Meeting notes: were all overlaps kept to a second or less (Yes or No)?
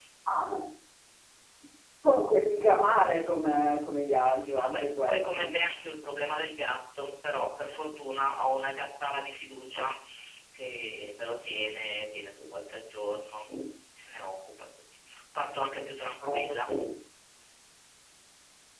No